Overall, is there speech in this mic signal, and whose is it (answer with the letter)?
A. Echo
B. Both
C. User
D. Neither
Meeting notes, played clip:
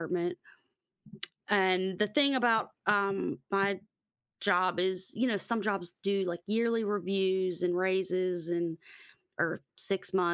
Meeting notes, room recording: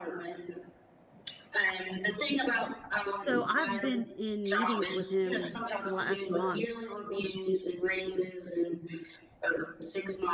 B